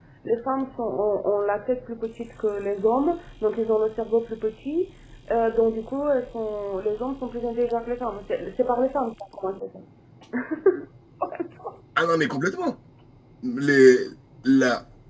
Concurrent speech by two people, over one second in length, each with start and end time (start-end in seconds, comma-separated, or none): none